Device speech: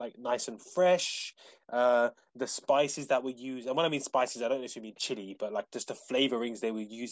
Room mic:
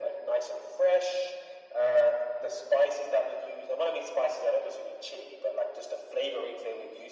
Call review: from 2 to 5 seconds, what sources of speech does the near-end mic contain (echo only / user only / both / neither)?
echo only